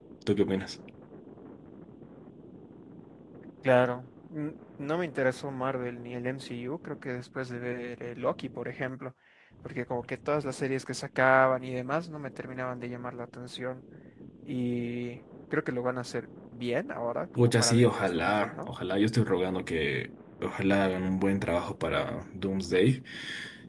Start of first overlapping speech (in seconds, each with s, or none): 17.4 s